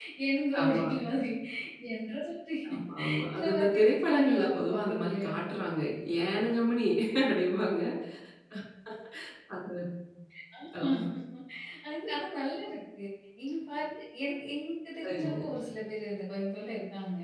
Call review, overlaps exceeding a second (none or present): present